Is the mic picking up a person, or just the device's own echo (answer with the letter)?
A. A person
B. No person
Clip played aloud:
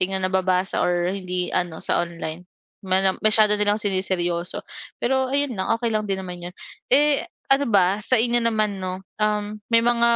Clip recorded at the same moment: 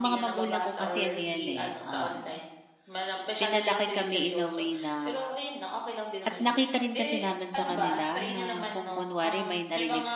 A